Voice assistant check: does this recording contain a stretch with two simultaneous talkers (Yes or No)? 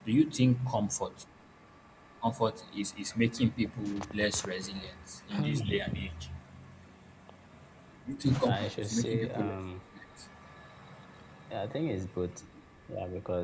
Yes